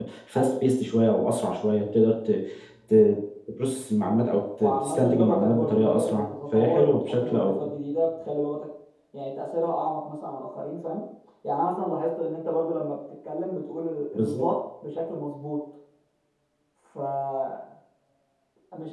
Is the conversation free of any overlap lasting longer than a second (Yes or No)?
No